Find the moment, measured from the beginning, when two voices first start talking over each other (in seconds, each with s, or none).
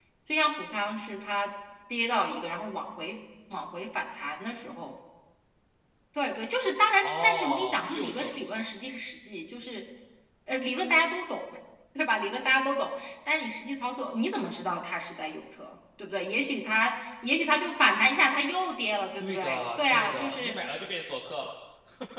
7.0 s